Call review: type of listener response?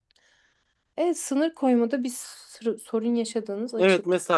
taking over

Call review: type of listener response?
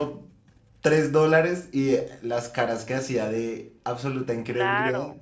taking over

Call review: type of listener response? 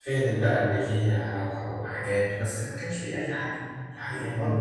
taking over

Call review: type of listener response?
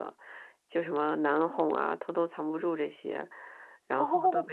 listening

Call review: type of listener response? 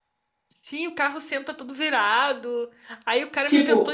listening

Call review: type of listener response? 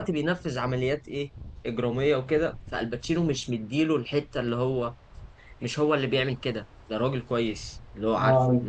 listening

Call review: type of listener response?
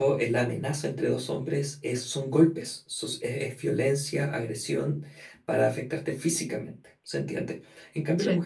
listening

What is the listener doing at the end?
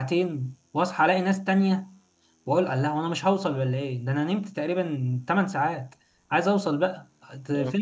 listening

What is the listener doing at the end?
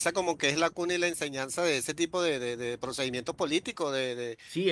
taking over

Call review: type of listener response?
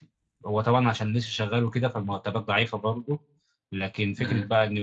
listening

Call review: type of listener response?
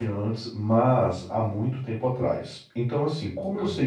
listening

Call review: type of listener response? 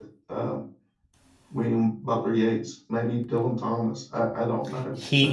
taking over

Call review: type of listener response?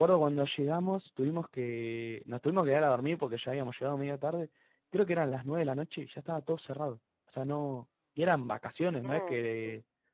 listening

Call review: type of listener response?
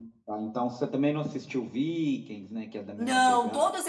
taking over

